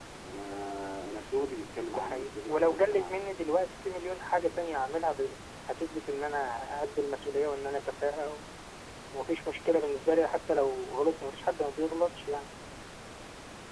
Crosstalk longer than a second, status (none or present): present